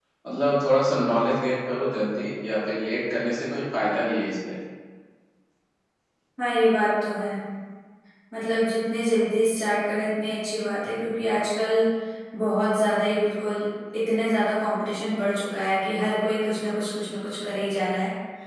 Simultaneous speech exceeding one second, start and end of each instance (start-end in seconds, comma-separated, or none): none